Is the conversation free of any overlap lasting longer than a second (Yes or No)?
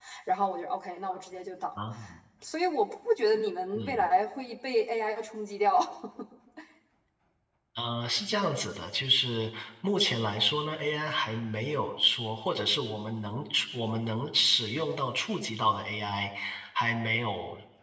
Yes